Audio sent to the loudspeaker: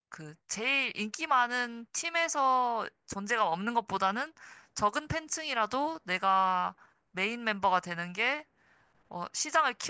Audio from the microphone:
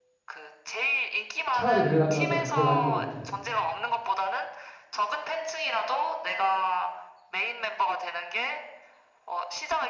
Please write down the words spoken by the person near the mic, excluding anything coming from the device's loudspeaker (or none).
차라리 그게 나, 맞아. 그게 나을 것 같아.